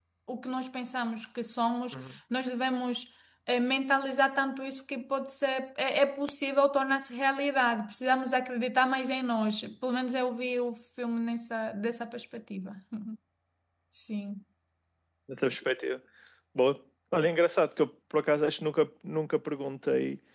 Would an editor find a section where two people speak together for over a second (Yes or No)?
No